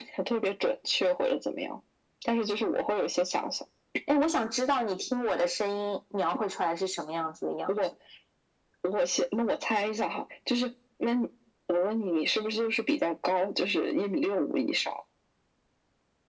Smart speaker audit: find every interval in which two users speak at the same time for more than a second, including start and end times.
none

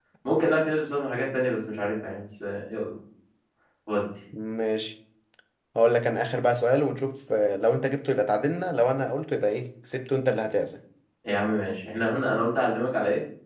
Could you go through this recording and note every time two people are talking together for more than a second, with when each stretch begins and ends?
none

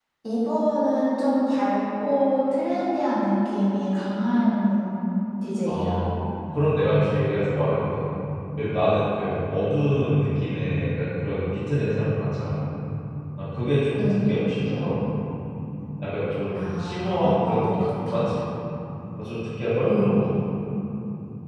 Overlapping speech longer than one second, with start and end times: 16.6-18.2

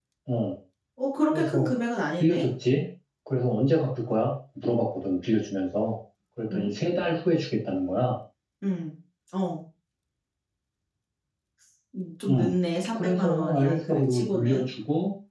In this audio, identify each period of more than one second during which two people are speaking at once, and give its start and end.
12.9-14.7

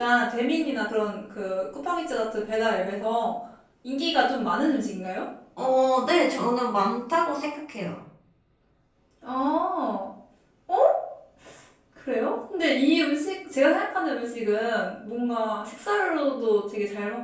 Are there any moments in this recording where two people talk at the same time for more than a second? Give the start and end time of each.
none

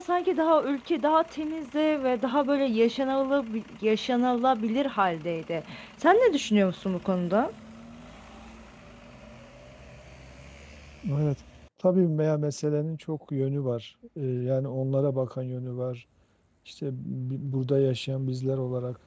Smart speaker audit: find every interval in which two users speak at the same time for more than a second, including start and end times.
none

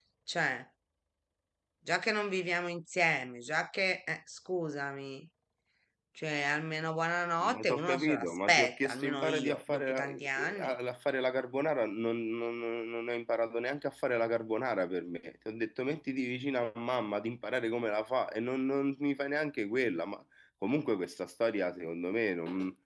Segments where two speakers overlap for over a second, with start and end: 7.4-10.8

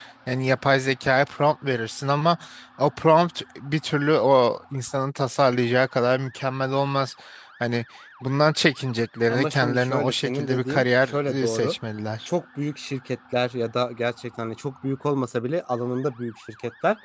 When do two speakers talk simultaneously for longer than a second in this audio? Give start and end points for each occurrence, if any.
9.3-11.7

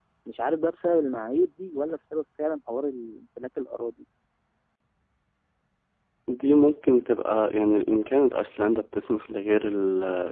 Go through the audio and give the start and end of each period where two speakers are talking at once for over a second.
none

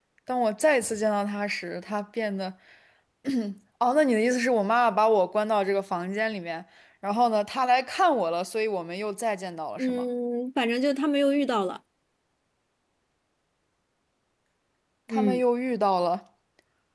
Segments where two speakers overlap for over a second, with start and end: none

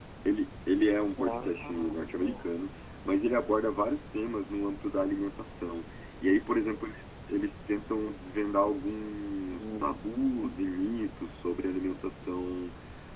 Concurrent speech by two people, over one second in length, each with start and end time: 1.2-2.5

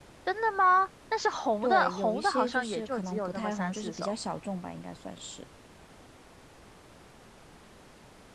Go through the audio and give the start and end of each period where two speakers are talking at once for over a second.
1.6-4.2

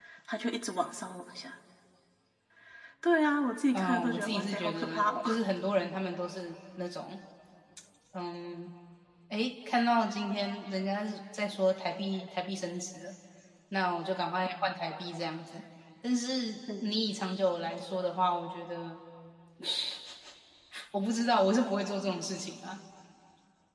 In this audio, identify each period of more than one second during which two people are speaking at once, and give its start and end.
3.7-5.4

